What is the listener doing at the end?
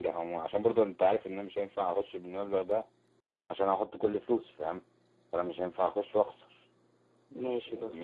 taking over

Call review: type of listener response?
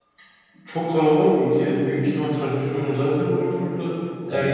listening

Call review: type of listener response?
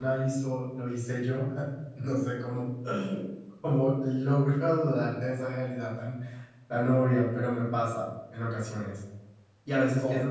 listening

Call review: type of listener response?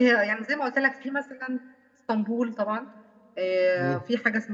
listening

